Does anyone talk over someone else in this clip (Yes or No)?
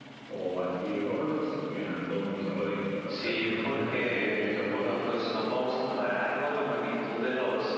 Yes